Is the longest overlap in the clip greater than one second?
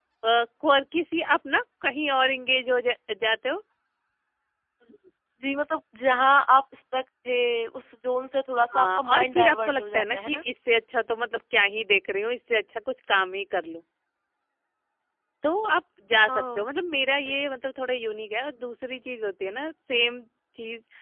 Yes, from 8.7 s

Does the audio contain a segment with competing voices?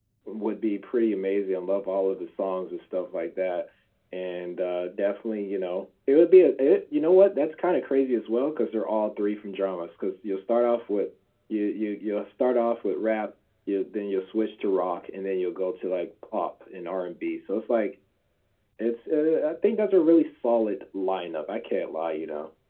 No

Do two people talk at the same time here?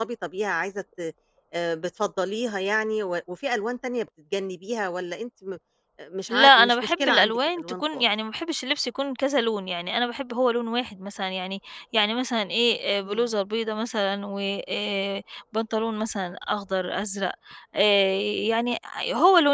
Yes, from 6.3 s

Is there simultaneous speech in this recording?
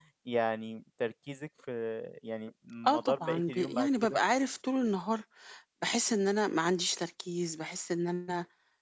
Yes, from 2.8 s

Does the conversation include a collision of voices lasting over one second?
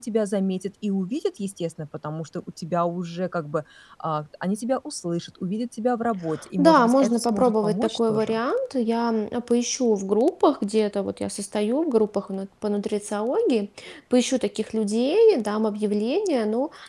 Yes, from 6.6 s

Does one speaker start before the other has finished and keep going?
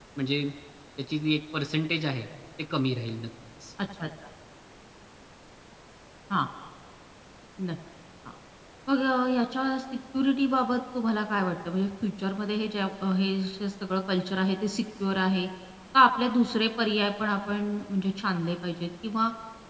No

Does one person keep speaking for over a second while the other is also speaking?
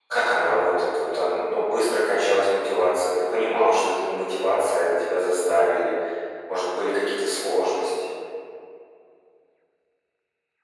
No

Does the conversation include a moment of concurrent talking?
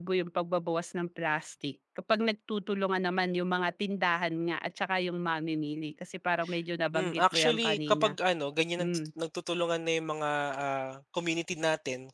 Yes, from 6.9 s

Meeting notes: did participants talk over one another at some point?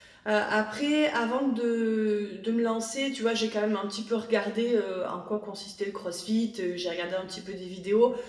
No

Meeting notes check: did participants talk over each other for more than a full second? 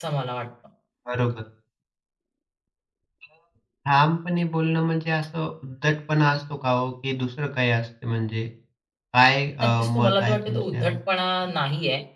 Yes, from 9.6 s

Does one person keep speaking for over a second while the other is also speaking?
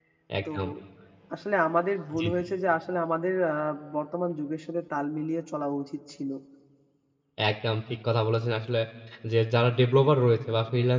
No

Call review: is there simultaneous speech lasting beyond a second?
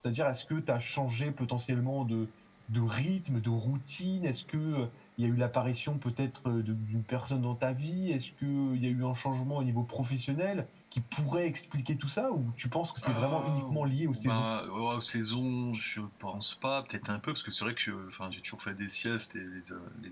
Yes, from 13.0 s

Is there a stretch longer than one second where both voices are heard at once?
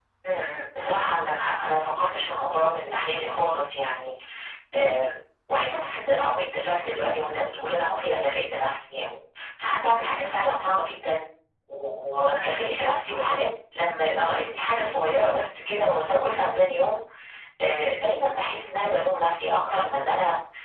No

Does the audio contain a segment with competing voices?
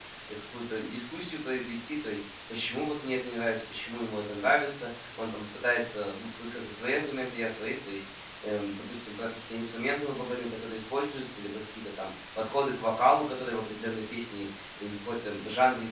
No

